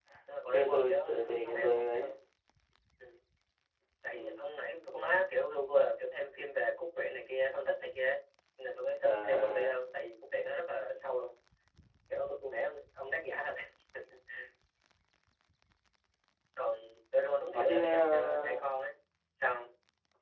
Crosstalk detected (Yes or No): Yes